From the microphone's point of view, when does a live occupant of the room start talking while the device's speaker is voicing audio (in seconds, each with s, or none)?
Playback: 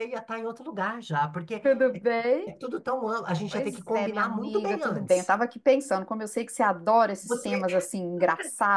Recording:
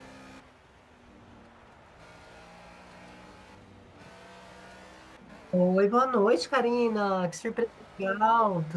5.5 s